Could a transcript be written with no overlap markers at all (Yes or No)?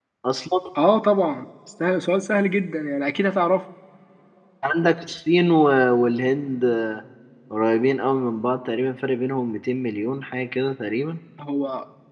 Yes